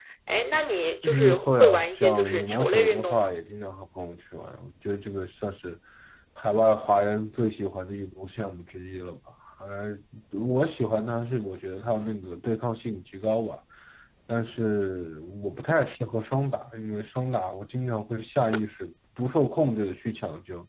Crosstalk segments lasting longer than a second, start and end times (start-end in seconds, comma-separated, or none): 1.0-3.3